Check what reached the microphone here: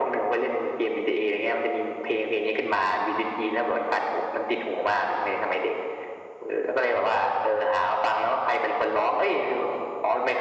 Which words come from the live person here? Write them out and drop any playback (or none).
none